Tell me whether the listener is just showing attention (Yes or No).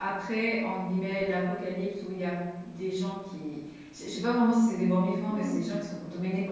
Yes